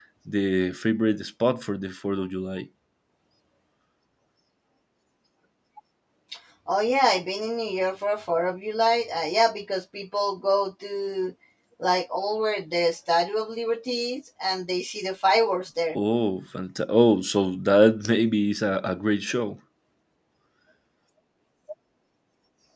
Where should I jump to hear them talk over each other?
none

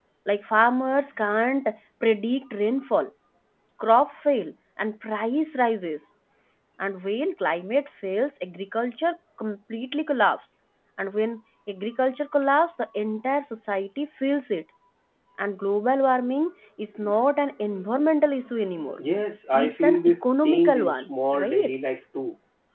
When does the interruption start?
19.5 s

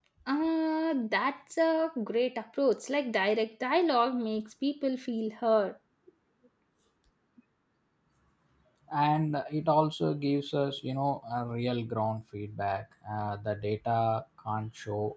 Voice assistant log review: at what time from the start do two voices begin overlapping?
none

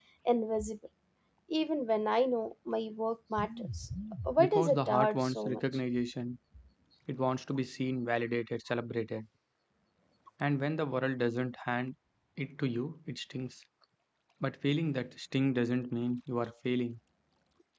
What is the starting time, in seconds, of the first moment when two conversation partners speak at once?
4.4 s

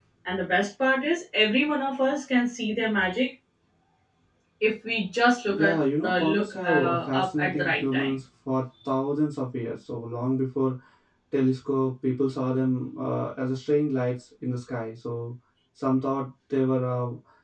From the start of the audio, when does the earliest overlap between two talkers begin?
5.5 s

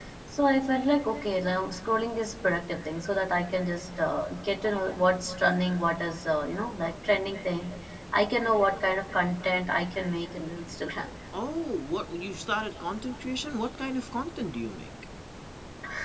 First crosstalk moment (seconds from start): none

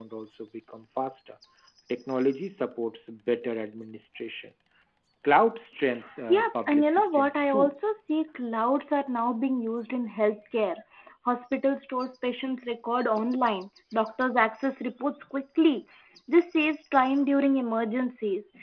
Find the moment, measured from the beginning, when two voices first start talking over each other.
6.3 s

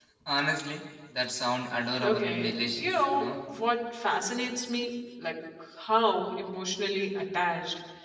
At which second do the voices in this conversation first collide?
2.0 s

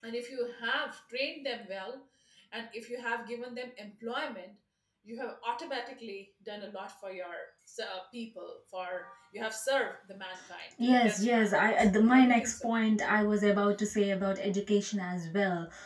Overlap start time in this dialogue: 10.8 s

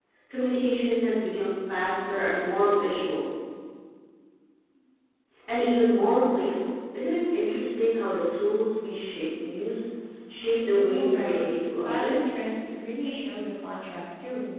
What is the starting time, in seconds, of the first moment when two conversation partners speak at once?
10.7 s

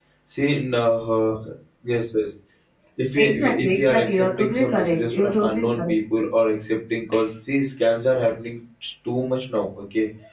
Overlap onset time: 3.2 s

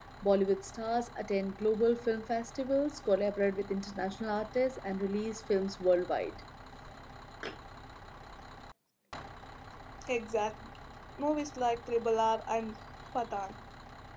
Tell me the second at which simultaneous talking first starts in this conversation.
none

